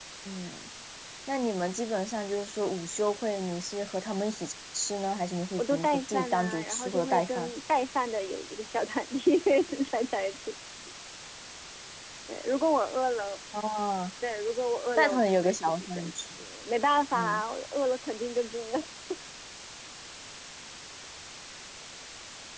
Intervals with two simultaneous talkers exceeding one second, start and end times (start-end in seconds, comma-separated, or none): 5.6-7.5, 15.0-16.2